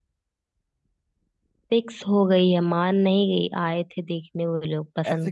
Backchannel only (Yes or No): No